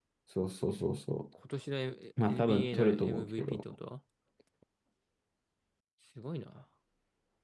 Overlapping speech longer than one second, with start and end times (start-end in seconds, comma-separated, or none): 2.2-3.6